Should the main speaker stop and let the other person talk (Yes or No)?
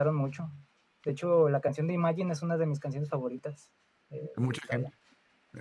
Yes